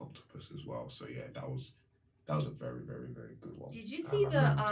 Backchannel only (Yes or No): No